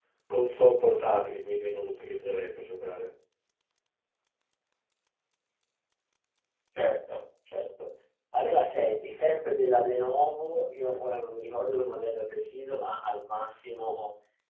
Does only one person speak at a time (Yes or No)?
Yes